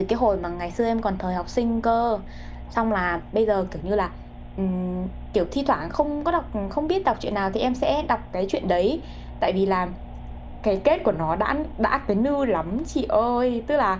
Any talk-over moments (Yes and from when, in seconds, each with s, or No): No